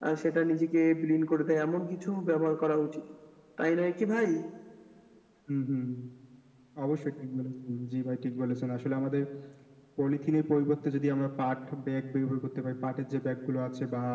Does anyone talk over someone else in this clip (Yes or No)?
No